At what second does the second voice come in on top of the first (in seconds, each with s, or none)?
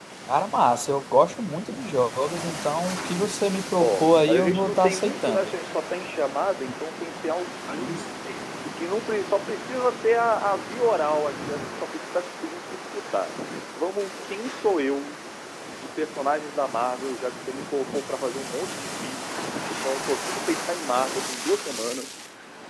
3.8 s